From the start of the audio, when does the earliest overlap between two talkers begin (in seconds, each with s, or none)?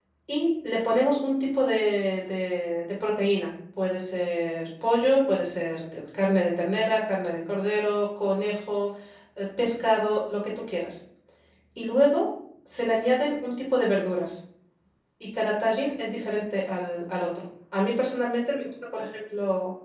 none